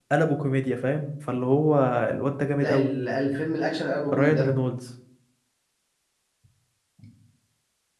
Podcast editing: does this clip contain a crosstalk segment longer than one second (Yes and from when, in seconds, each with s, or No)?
No